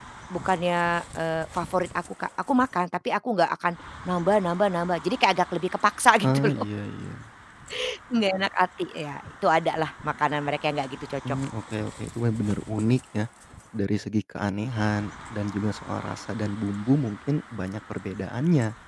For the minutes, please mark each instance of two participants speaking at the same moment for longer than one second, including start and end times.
none

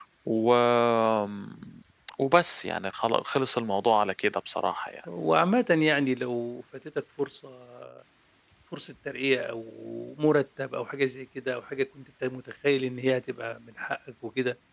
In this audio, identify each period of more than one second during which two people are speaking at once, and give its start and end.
none

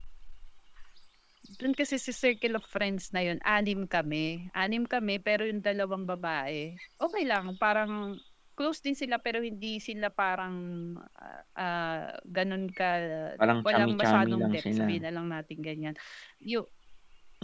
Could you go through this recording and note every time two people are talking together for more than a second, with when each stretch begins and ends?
13.6-14.9

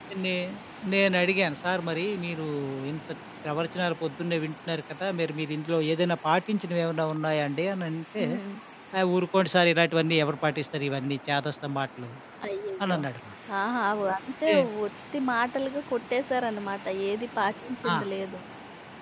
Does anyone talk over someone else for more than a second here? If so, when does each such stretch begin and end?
none

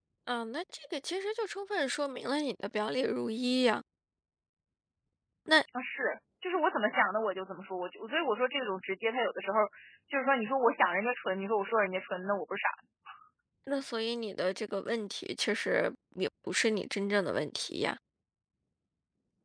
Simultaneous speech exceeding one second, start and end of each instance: none

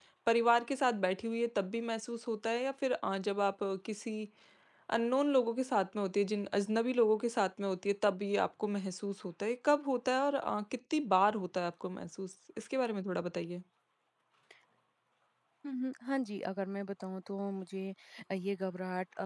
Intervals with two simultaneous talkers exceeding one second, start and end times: none

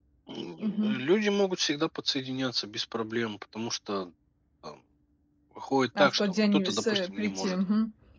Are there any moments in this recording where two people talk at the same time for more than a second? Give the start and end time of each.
6.0-7.6

